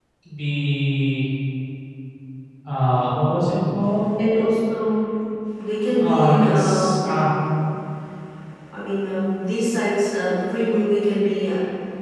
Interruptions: present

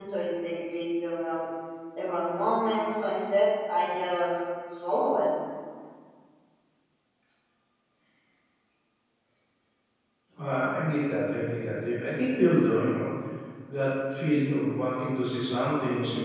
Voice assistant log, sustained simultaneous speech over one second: none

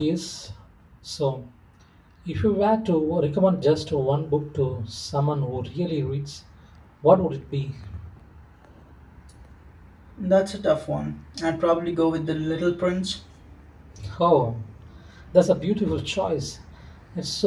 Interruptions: none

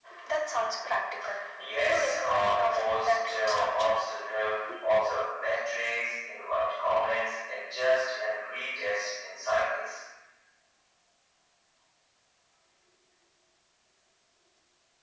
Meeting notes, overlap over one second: present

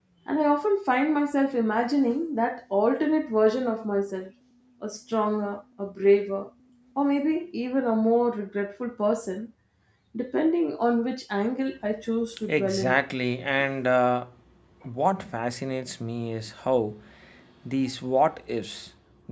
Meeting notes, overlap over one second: none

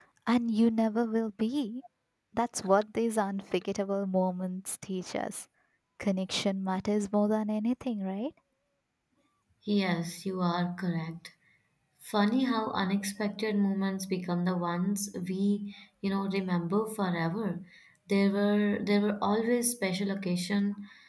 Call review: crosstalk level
none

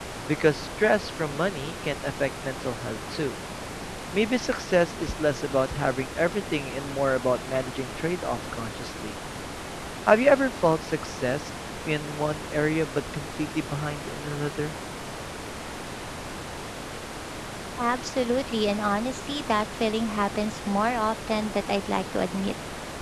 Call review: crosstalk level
none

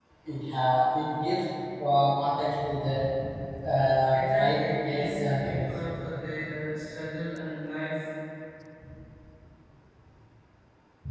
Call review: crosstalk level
present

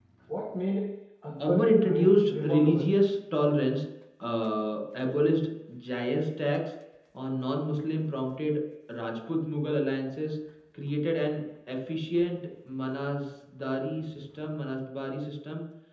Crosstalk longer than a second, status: present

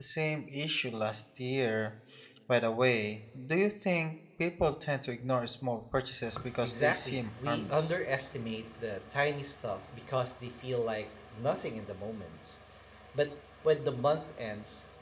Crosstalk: present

